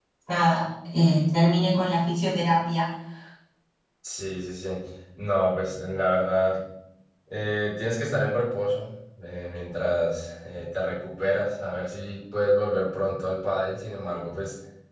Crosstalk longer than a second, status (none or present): none